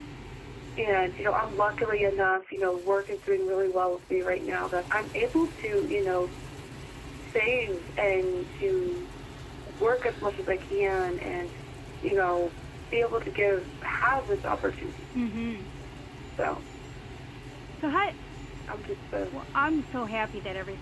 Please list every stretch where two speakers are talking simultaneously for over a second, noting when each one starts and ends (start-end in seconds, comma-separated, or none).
none